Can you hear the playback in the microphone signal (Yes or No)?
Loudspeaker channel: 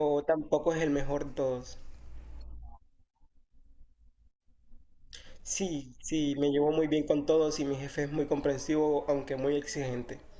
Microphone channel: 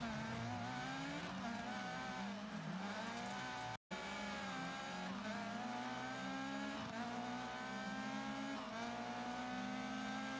No